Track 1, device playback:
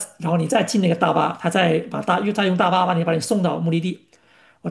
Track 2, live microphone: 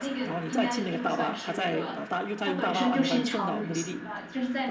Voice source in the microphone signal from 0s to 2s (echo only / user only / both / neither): both